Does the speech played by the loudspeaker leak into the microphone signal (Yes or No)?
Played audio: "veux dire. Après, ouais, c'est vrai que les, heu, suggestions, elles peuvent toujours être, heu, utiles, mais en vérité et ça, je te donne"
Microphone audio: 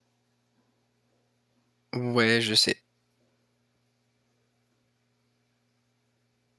No